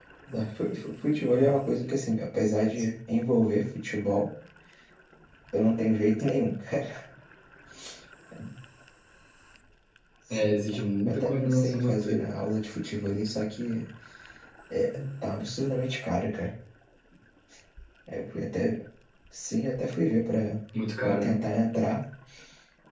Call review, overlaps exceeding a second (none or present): present